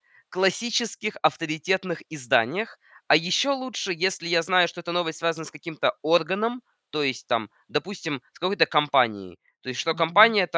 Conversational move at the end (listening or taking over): listening